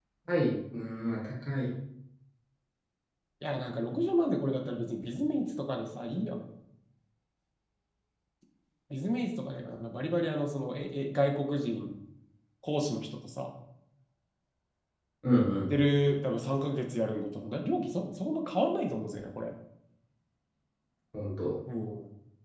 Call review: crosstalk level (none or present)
none